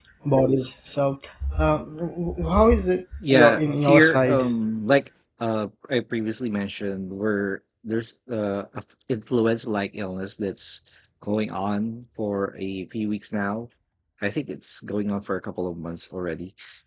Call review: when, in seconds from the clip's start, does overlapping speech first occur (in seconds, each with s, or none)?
3.2 s